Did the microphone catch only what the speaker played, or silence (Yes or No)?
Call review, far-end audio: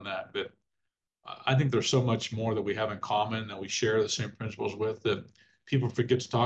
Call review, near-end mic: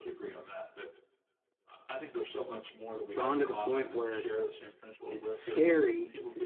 No